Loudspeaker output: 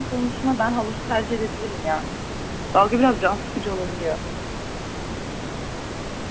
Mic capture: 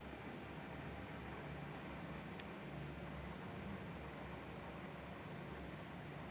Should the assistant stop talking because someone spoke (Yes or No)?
No